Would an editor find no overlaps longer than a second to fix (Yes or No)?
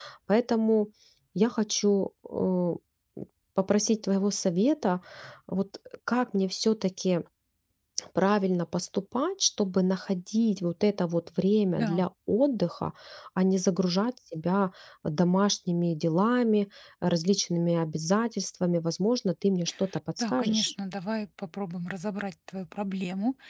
Yes